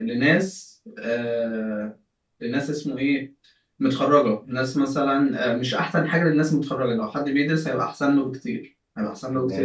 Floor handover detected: Yes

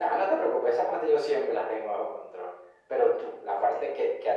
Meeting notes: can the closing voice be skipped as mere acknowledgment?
Yes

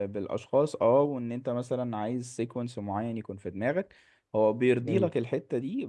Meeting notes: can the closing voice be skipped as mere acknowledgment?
Yes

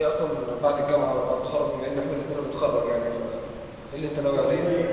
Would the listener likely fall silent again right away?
No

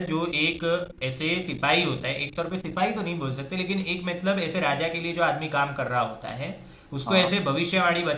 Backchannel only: Yes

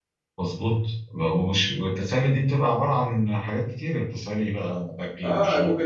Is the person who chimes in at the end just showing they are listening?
No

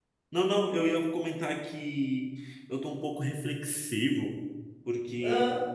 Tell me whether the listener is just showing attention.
Yes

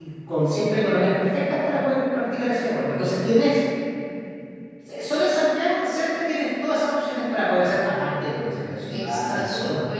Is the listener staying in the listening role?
No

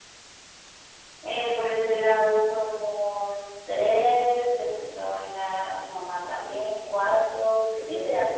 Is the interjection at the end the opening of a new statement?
Yes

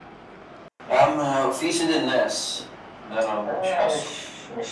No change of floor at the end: No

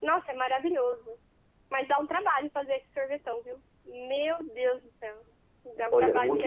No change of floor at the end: No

